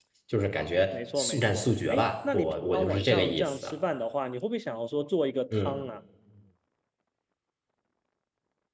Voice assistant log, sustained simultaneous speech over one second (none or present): present